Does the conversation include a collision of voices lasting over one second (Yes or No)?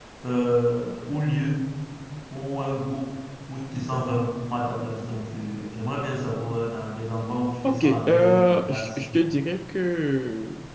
Yes